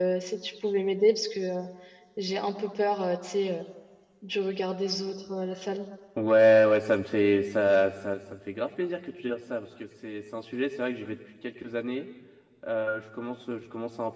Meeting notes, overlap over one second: none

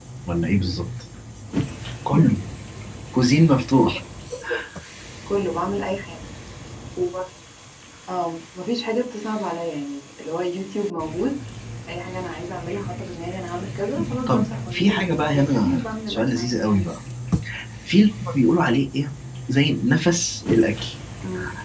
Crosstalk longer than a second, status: present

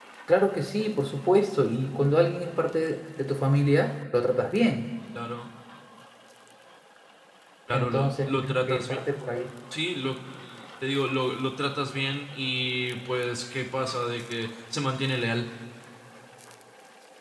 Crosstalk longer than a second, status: present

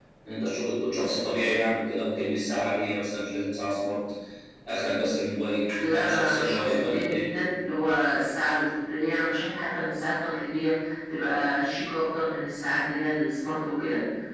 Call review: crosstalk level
present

